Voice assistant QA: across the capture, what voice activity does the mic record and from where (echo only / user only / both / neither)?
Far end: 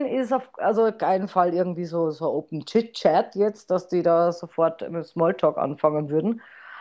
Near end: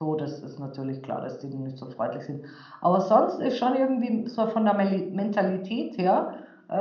user only